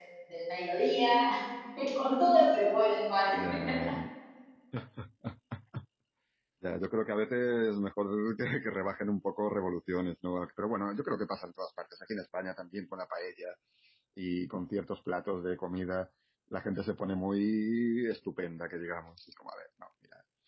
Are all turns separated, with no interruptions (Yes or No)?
Yes